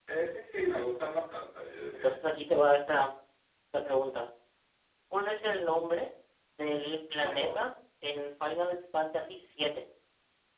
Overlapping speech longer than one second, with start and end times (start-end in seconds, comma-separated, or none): none